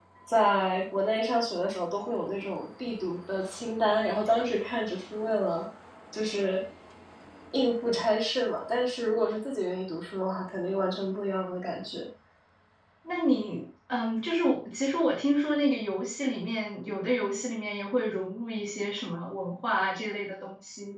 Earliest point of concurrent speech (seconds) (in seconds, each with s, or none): none